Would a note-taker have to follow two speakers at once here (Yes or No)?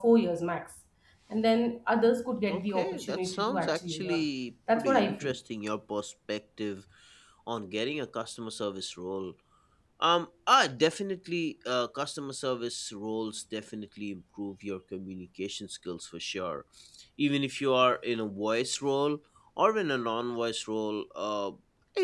Yes